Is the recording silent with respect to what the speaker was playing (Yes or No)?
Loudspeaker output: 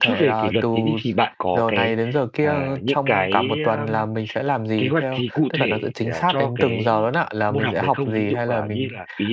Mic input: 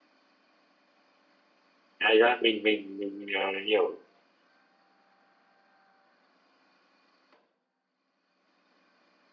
Yes